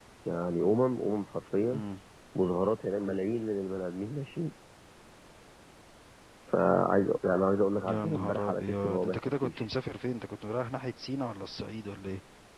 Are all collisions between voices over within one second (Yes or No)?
No